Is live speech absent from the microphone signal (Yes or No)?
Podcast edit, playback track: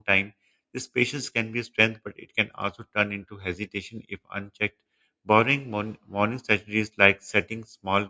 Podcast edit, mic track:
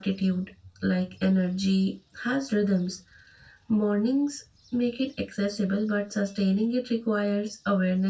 No